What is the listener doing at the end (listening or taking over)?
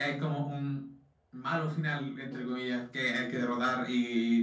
listening